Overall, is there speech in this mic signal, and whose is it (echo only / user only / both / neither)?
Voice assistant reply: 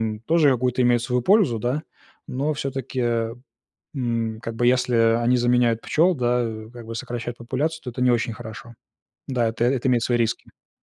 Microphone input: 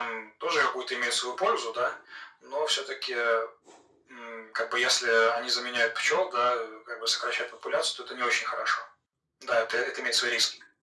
echo only